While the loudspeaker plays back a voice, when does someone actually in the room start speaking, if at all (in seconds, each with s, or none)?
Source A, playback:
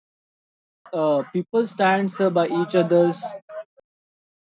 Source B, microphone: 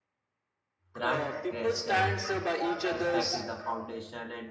0.9 s